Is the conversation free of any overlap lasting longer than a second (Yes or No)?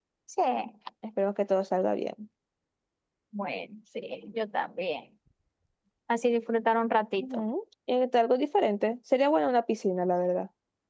Yes